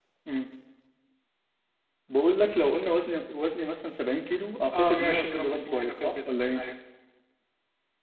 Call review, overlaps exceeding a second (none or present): present